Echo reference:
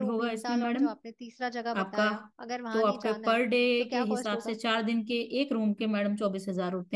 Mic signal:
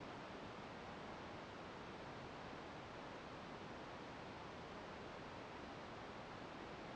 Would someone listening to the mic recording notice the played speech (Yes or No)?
No